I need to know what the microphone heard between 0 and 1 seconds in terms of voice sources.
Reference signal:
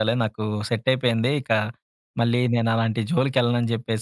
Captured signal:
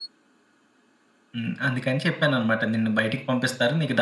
neither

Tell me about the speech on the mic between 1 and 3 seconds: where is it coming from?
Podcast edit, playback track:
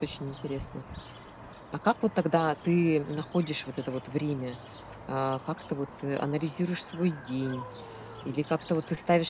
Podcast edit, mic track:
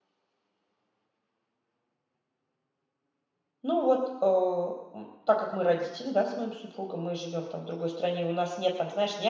neither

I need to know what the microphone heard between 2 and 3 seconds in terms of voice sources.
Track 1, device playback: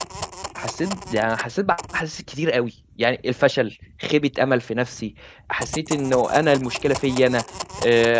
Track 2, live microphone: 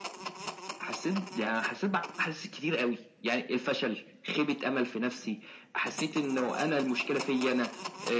echo only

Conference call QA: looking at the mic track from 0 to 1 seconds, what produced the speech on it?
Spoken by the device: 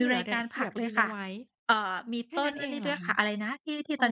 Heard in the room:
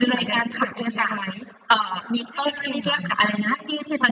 echo only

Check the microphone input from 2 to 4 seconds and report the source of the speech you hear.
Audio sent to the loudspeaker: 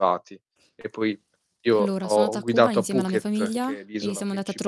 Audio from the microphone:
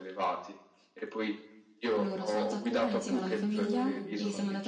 both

